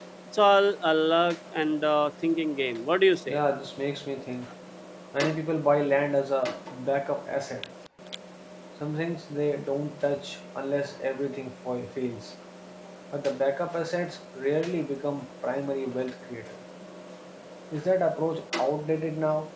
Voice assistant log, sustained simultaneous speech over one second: none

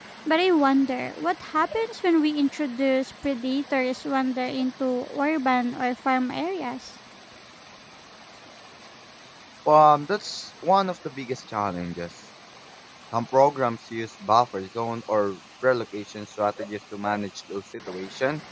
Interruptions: none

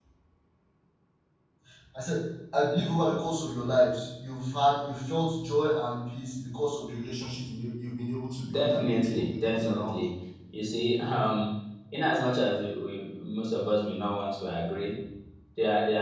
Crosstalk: present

